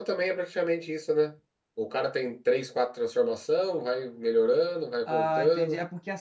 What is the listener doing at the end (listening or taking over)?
taking over